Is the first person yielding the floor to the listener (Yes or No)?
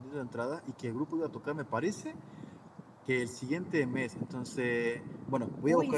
No